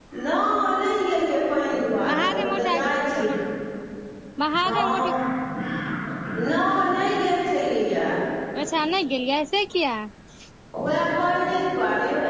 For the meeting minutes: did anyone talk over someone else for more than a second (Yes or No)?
Yes